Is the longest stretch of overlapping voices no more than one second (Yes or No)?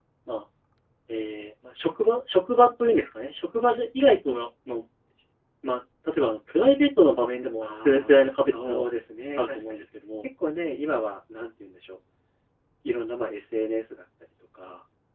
No